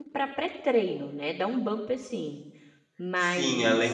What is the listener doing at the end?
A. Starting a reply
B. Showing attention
A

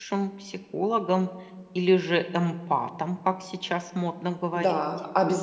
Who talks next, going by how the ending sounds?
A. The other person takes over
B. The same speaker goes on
A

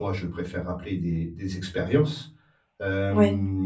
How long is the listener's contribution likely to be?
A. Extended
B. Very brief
B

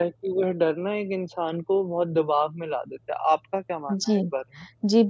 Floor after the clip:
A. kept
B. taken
B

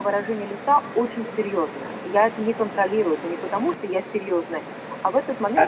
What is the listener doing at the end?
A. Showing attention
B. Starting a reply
A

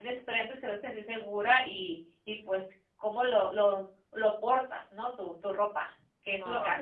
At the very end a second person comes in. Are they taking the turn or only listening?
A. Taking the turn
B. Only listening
A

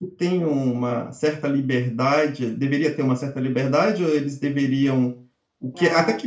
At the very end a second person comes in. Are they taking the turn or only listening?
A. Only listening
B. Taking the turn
A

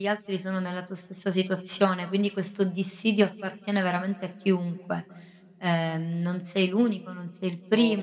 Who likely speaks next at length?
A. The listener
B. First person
A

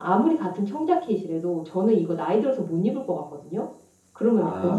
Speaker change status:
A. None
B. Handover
B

